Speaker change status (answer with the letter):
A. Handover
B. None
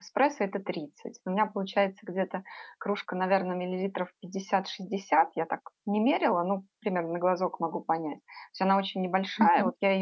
B